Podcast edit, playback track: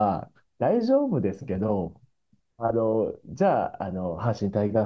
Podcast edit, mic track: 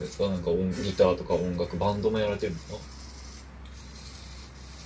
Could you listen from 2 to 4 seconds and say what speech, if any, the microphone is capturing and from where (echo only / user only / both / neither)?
user only